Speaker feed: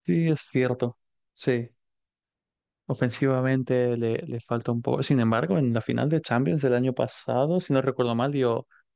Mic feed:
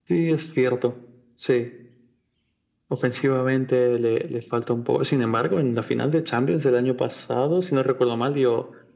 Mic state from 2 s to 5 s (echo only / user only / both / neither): echo only